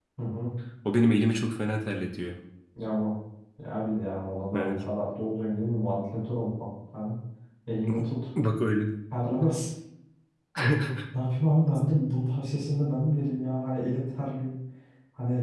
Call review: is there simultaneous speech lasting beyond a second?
No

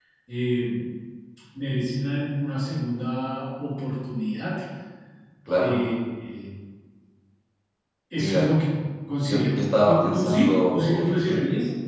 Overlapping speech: Yes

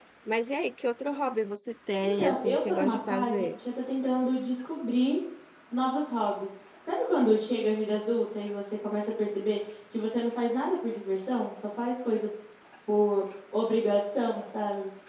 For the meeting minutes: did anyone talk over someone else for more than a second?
Yes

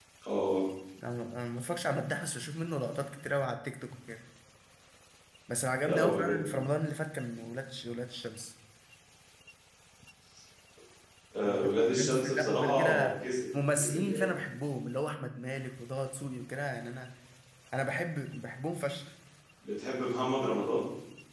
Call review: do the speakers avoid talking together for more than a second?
No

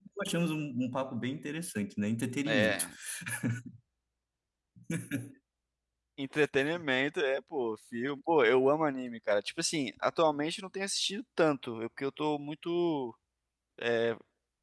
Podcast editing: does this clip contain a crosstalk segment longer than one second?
No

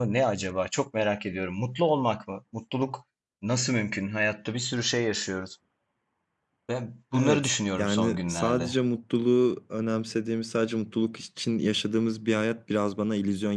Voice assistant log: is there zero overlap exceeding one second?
No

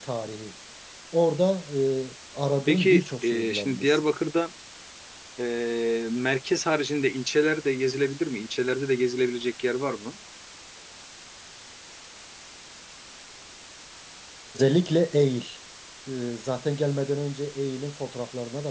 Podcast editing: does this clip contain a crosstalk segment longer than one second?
Yes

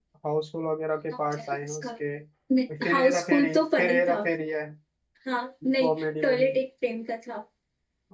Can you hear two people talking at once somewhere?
Yes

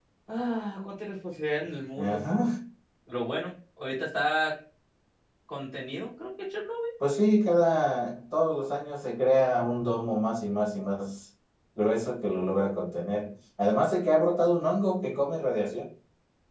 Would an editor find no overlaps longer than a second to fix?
Yes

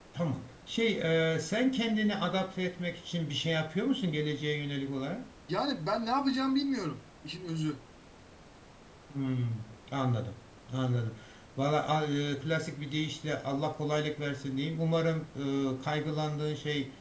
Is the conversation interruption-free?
Yes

